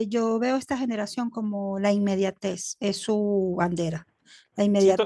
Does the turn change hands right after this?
No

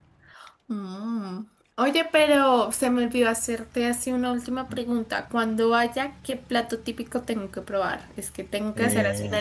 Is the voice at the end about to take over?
No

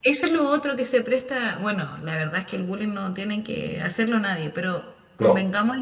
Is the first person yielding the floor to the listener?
No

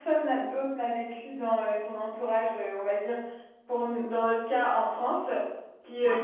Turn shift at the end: No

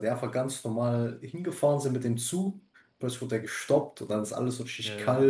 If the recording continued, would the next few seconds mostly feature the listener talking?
No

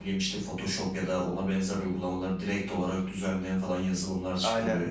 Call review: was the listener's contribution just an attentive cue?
Yes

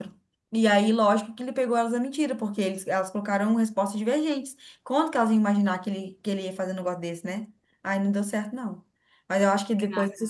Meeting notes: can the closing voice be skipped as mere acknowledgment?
Yes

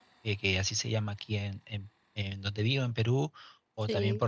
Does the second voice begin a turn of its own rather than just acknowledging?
No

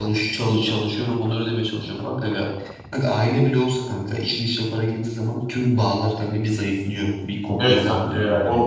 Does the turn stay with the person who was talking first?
No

